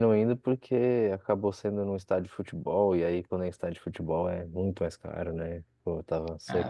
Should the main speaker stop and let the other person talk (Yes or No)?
No